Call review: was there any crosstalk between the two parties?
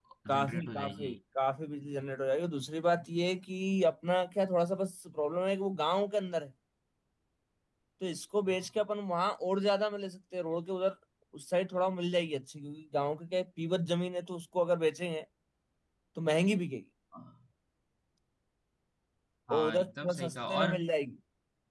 Yes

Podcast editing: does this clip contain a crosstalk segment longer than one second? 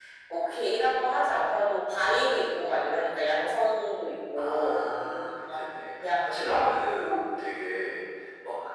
Yes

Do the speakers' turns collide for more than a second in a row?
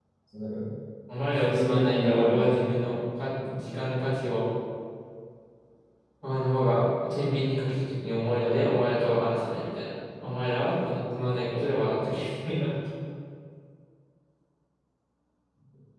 Yes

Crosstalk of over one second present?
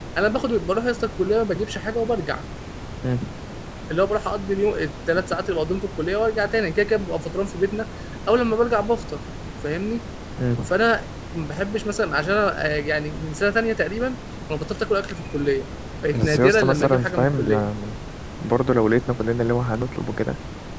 Yes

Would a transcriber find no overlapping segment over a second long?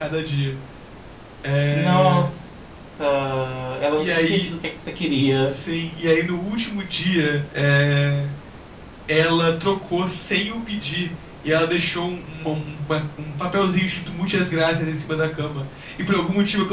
Yes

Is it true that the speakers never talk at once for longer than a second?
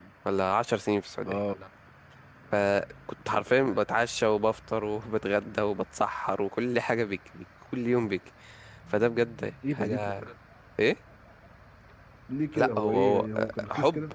No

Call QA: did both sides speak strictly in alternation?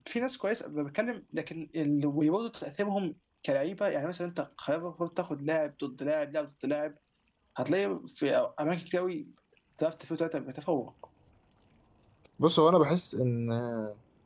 Yes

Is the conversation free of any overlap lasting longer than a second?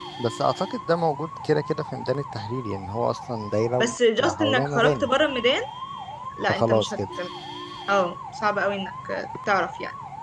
No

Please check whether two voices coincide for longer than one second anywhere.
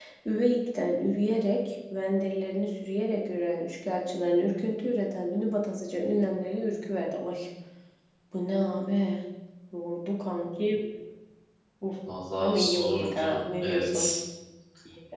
Yes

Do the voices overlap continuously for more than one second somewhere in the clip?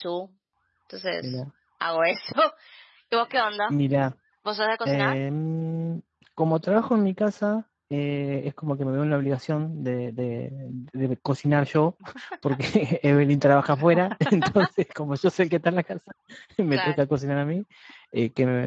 No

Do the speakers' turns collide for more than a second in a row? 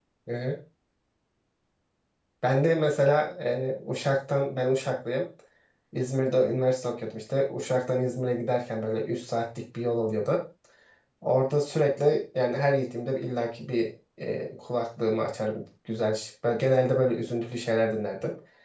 No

